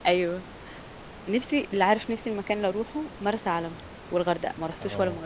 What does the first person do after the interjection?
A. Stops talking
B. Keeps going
A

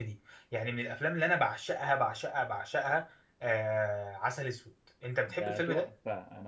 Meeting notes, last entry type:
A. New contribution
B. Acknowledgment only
A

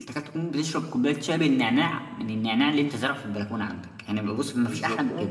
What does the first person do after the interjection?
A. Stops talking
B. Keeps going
A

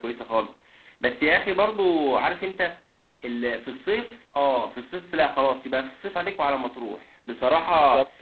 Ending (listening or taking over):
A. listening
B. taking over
A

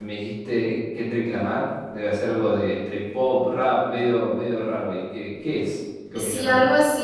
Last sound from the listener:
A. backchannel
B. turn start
B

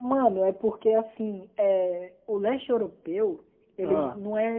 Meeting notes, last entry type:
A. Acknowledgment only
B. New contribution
A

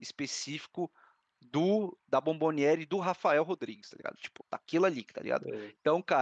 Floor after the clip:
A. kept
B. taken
A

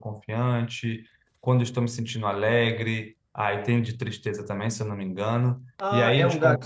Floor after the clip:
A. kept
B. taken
B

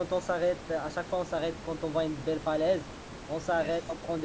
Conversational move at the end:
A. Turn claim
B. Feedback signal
B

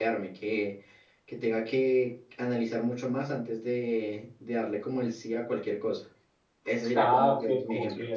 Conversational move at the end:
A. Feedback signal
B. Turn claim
B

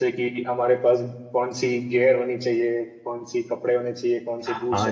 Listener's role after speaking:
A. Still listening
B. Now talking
B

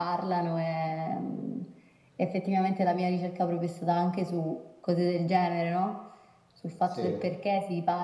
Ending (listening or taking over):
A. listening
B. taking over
A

